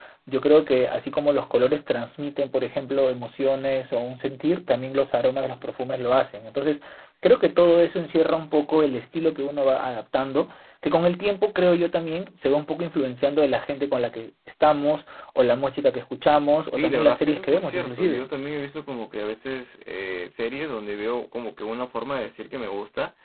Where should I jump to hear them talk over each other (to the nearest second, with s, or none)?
17 s